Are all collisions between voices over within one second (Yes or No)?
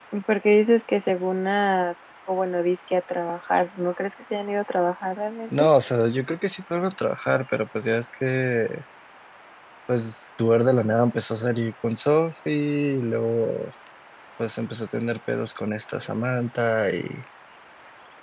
Yes